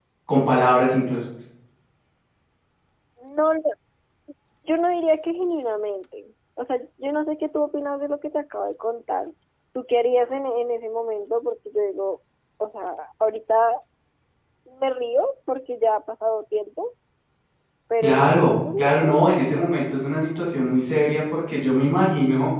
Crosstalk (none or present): present